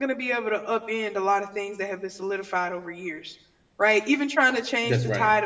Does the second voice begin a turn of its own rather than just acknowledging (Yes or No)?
No